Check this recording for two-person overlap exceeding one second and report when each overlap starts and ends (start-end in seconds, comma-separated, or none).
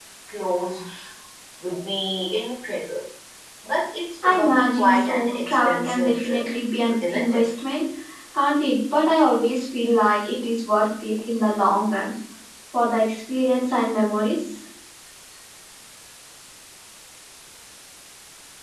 4.2-6.4